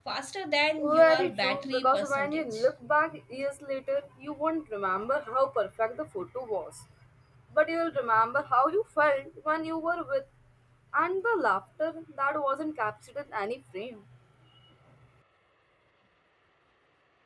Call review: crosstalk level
present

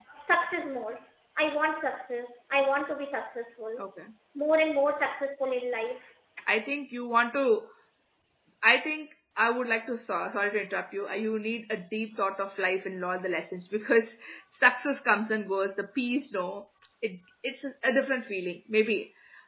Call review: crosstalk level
none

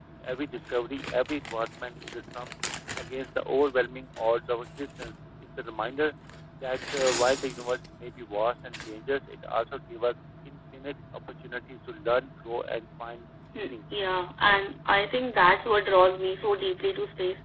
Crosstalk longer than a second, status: none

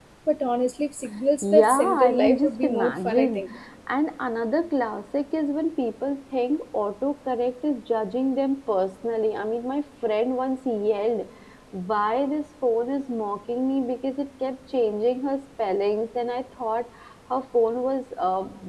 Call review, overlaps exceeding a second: present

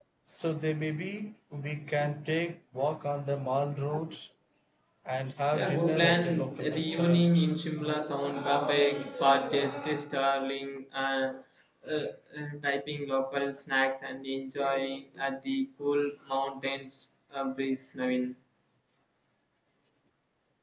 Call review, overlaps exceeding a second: present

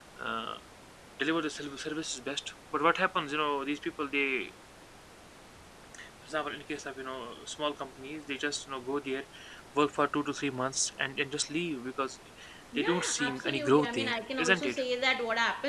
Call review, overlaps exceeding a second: present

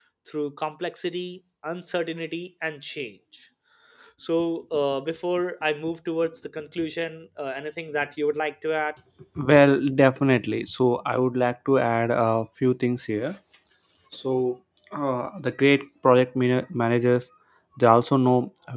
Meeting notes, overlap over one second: none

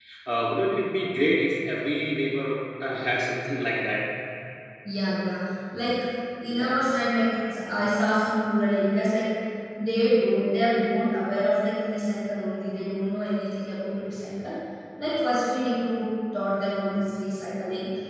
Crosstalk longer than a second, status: none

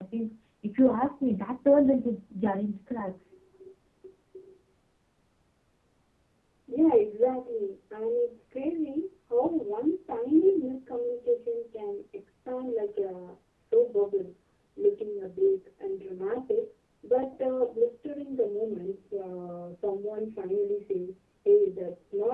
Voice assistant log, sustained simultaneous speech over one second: none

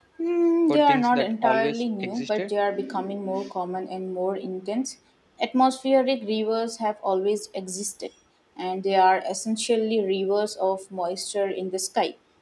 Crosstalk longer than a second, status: present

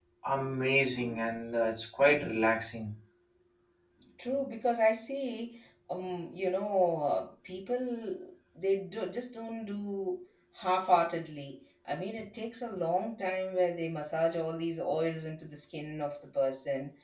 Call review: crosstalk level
none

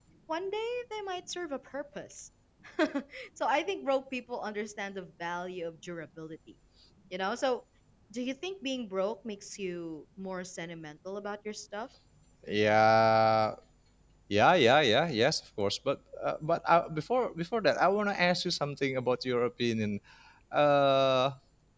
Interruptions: none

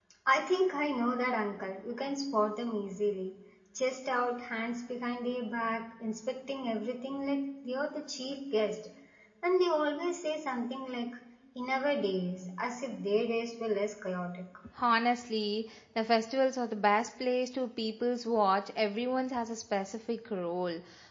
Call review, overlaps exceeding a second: none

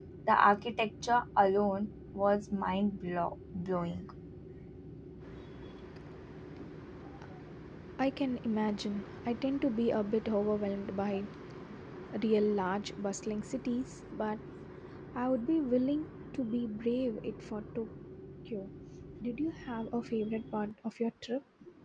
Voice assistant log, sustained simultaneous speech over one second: none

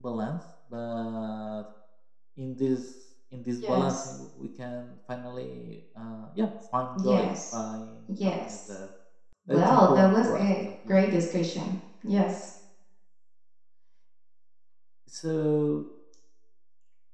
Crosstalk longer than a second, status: present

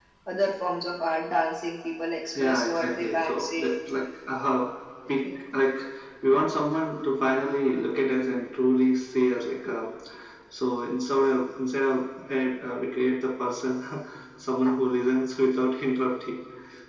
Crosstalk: present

